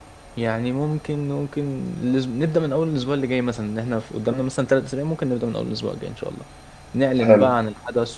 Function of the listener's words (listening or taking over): listening